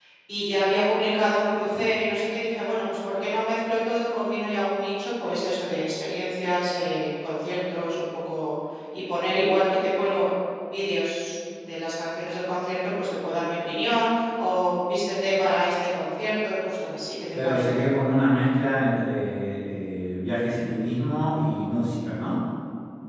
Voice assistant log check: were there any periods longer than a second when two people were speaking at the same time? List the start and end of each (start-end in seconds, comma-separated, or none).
none